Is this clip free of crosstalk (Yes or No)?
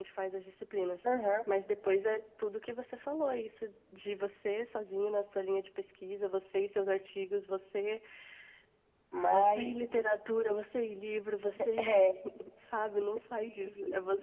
No